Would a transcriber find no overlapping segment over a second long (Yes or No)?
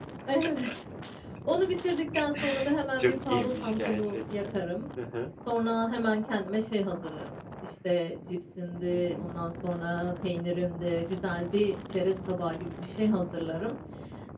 No